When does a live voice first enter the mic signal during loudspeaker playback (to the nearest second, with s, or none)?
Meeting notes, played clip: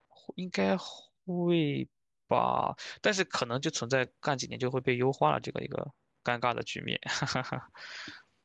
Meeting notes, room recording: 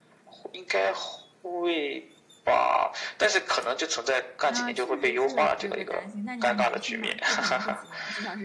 4 s